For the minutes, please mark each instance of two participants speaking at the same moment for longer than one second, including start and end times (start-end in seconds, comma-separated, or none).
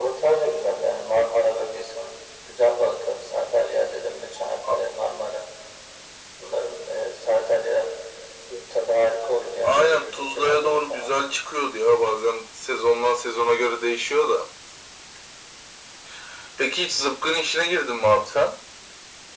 9.6-11.2